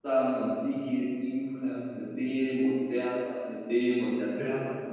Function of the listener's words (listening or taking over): listening